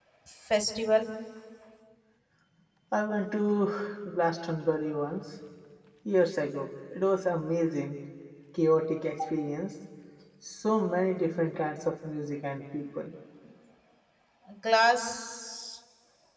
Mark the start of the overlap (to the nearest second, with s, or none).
none